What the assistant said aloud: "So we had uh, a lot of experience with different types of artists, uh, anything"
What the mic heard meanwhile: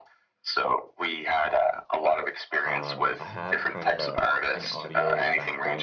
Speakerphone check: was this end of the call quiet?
No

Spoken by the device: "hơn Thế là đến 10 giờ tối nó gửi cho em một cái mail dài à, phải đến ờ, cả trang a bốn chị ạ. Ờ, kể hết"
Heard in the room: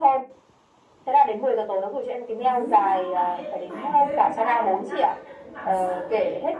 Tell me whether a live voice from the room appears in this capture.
Yes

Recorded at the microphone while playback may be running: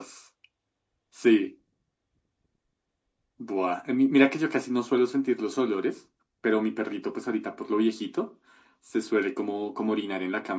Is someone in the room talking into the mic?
No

